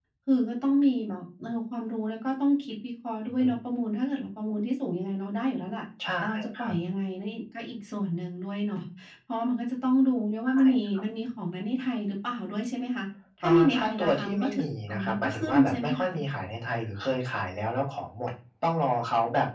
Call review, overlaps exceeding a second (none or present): present